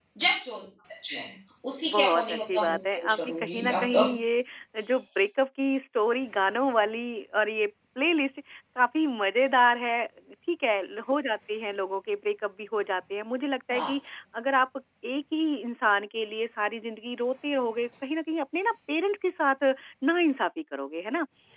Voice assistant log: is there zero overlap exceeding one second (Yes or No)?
No